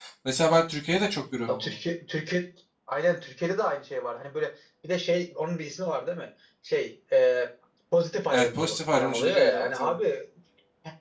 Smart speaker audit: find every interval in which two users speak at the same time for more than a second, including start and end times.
8.3-9.9

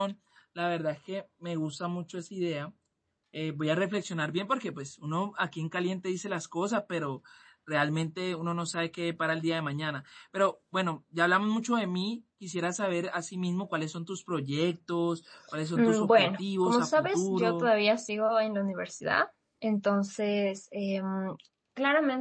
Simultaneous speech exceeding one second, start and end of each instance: 15.8-17.7

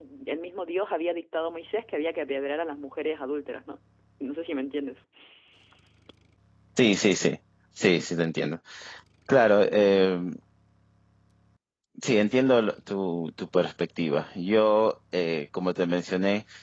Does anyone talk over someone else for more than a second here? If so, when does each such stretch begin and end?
none

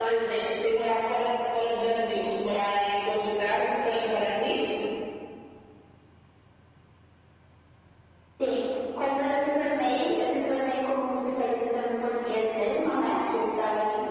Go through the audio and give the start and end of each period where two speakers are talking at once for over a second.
none

